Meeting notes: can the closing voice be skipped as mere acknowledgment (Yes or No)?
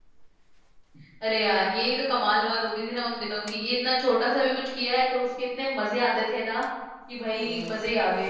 Yes